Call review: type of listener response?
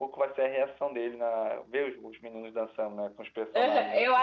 taking over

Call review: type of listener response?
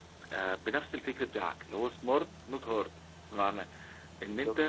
listening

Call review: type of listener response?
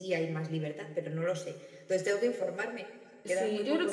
taking over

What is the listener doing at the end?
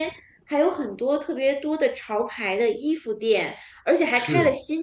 listening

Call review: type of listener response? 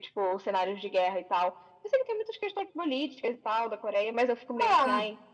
taking over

